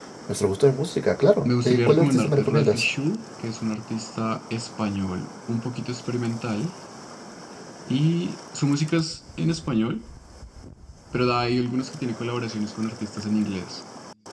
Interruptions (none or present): present